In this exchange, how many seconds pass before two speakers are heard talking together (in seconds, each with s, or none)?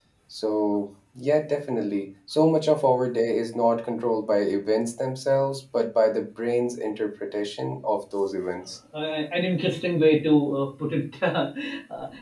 none